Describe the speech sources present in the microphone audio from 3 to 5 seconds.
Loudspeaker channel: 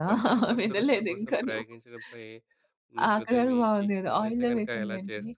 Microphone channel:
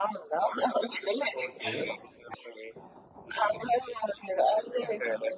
echo only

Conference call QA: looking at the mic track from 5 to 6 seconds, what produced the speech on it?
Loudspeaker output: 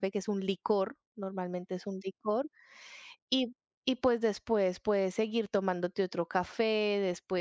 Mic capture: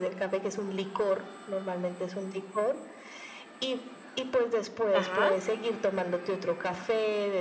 both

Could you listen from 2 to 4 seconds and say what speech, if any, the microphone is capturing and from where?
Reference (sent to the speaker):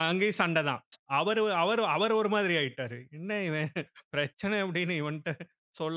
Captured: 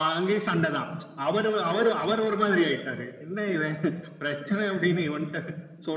echo only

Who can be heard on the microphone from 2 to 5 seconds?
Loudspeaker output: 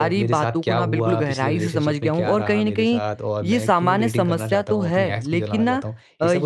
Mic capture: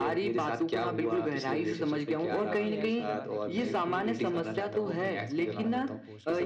both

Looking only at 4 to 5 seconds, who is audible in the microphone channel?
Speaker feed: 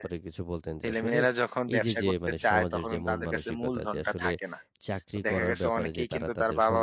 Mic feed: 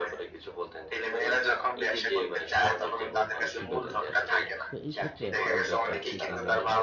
both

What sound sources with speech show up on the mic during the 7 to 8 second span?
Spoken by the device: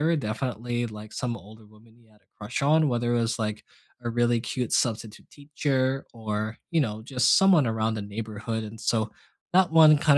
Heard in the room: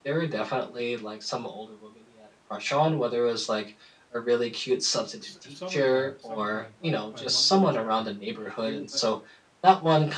both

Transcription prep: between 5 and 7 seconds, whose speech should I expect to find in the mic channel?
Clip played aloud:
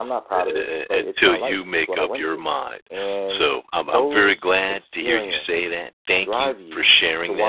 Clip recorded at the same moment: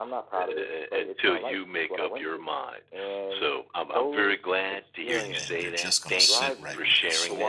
both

